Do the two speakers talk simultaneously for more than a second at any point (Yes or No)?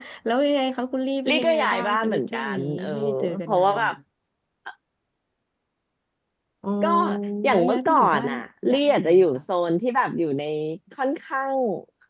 Yes